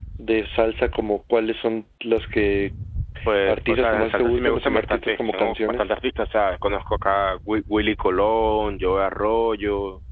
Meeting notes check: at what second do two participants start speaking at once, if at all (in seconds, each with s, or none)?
3.5 s